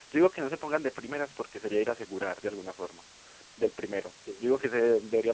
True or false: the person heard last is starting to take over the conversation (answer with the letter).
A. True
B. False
B